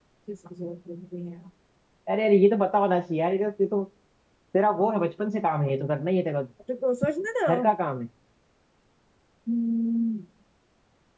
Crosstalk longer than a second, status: none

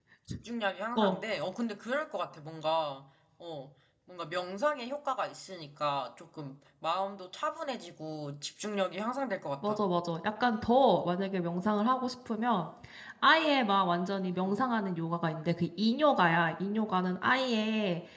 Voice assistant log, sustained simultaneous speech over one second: none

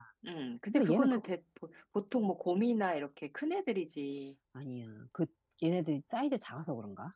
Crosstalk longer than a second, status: none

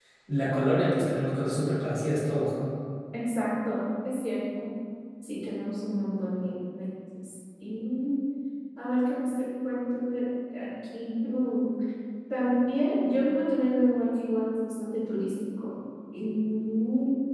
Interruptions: none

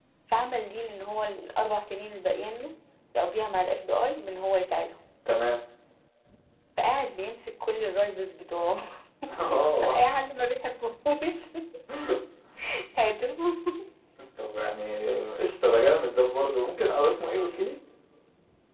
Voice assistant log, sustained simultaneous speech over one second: none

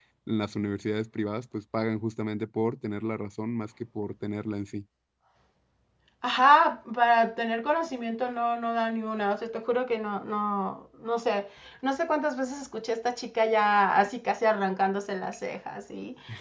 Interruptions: none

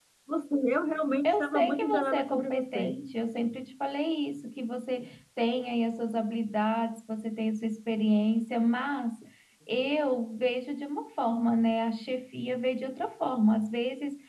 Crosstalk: present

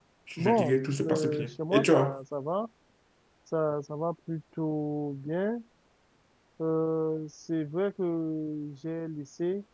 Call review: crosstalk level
present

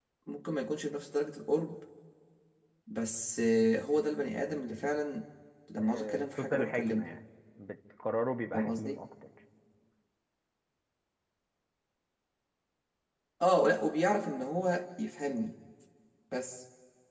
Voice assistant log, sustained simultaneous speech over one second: present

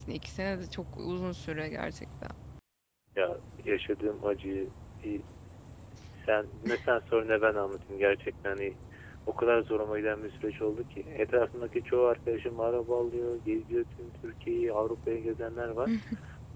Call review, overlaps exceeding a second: none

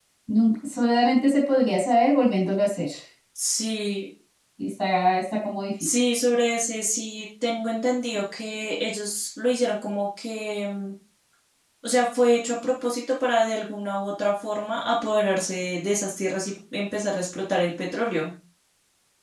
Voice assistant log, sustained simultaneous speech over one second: none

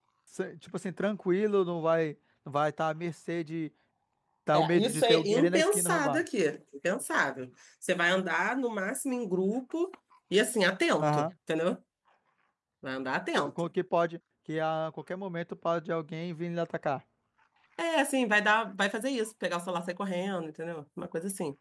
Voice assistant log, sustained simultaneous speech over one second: present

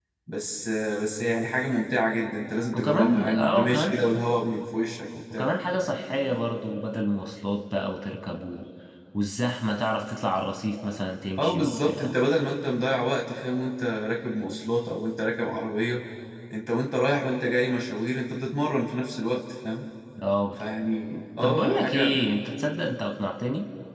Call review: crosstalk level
present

